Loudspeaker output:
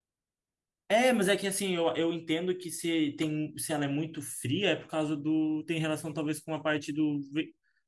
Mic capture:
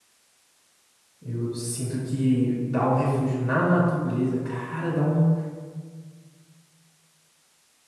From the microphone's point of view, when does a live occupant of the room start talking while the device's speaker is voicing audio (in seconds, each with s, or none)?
1.2 s